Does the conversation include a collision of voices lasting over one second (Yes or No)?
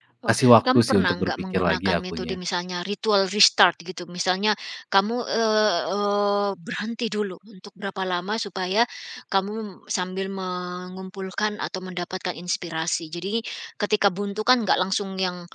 Yes